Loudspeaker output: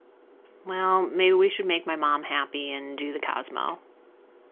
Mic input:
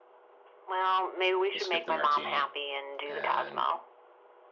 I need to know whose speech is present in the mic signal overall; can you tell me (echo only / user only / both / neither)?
both